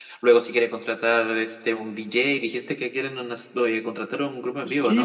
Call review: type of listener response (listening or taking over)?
taking over